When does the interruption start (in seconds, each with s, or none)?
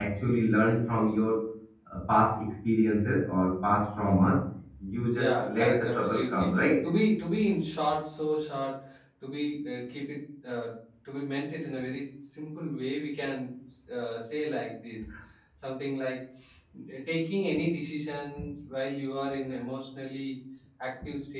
5.1 s